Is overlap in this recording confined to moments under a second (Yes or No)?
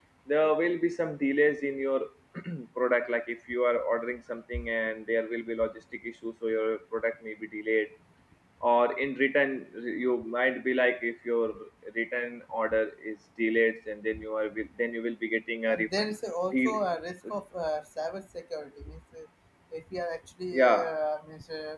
Yes